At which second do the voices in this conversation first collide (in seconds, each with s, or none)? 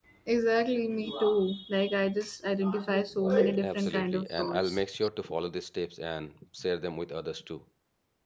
3.6 s